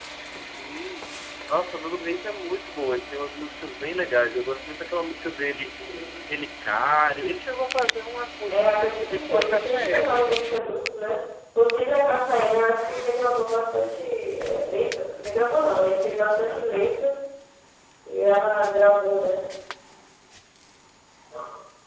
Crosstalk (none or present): present